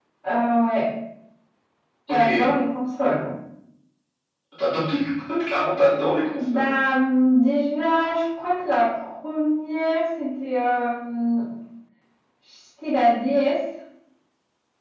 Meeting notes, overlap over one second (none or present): none